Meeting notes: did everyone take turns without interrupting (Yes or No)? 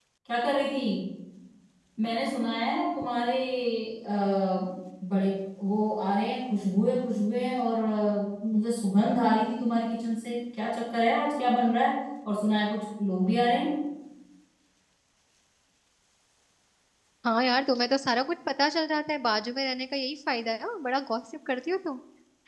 Yes